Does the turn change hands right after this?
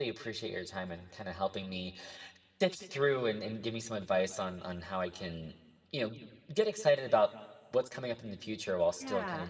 No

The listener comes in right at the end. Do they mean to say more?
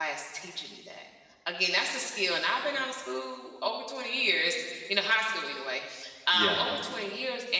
No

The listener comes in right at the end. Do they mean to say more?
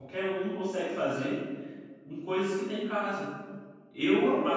No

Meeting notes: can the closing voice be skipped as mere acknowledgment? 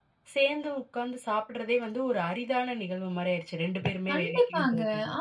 No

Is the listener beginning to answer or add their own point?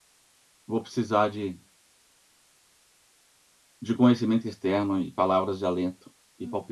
No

